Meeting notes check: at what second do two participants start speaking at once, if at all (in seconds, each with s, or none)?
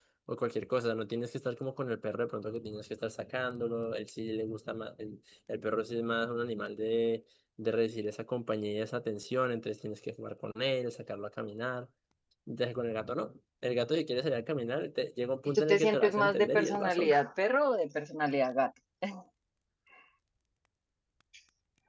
15.7 s